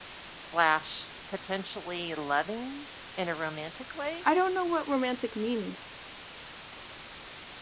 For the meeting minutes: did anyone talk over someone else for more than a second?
No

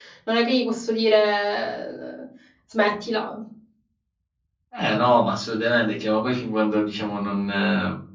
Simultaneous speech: No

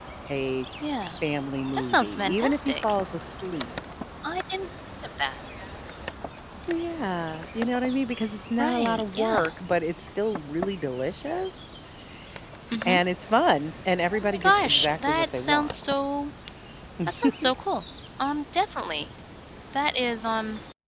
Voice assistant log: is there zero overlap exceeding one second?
No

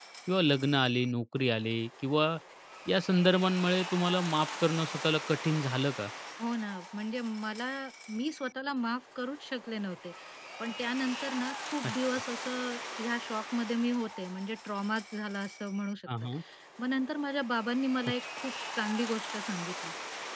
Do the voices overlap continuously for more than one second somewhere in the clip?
No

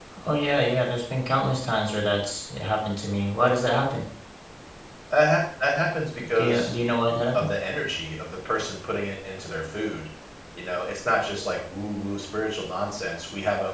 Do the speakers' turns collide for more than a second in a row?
No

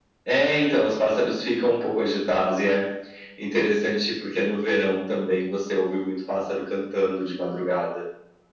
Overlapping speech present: No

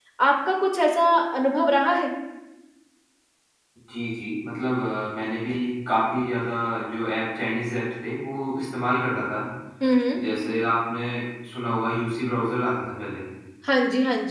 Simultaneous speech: No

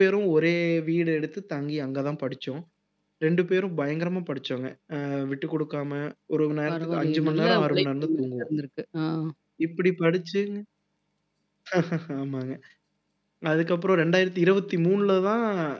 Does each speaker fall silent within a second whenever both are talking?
No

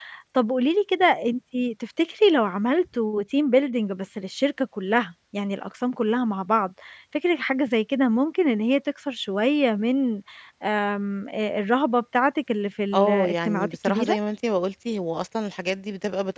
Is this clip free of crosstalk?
No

